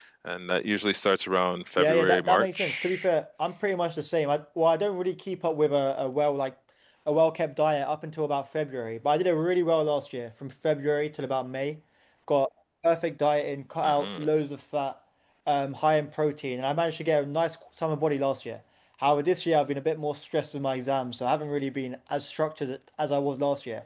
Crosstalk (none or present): present